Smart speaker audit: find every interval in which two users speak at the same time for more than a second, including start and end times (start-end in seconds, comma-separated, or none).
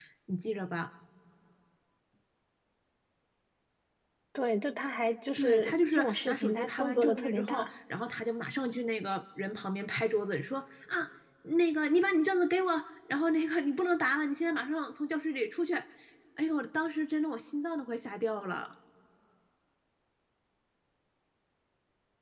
5.4-7.7